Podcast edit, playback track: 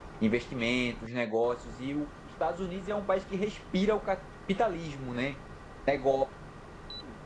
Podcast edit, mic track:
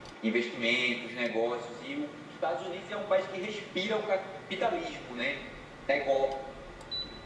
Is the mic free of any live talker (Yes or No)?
Yes